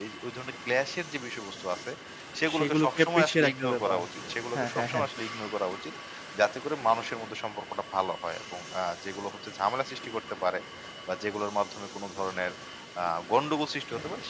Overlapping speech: Yes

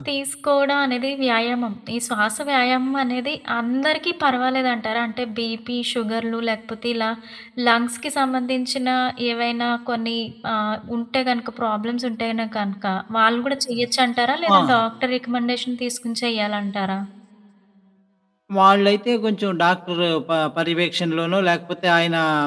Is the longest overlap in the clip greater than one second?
No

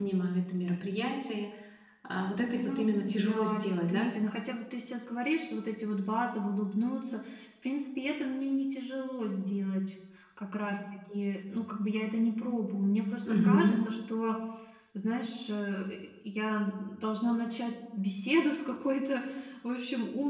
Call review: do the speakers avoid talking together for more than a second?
No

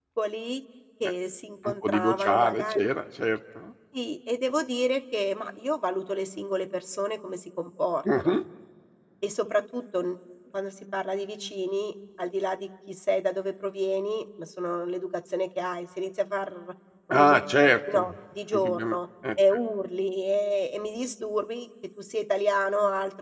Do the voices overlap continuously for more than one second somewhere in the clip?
Yes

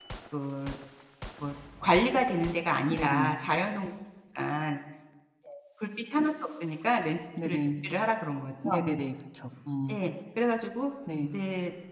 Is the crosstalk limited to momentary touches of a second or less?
Yes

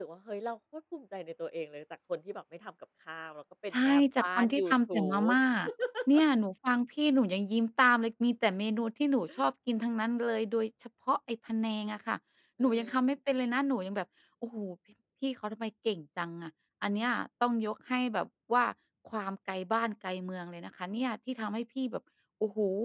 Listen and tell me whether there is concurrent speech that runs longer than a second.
Yes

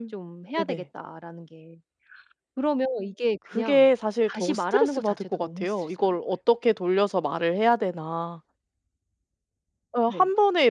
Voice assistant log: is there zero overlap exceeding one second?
No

